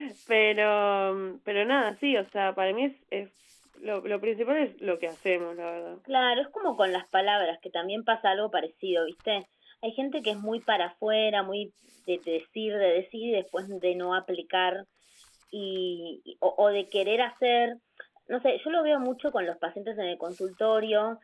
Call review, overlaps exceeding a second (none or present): none